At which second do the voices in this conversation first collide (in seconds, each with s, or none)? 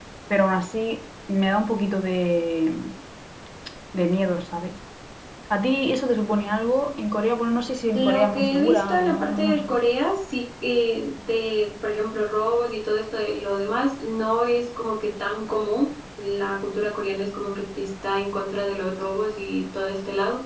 7.9 s